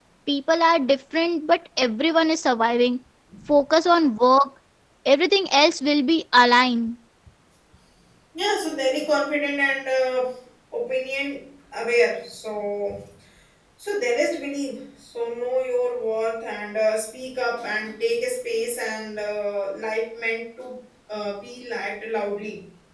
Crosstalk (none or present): none